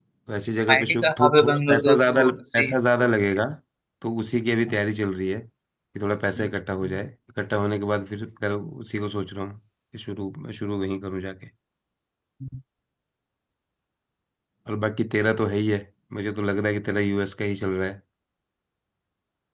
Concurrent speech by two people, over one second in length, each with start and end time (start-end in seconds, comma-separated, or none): 0.7-2.7